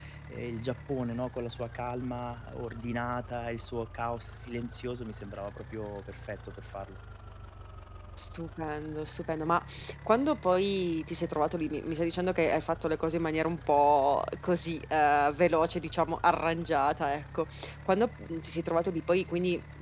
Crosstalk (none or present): none